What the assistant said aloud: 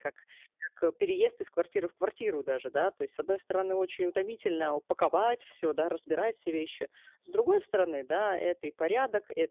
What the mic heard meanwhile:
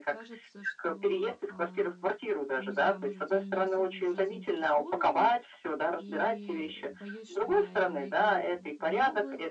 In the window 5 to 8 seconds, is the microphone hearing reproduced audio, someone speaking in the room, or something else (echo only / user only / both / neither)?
both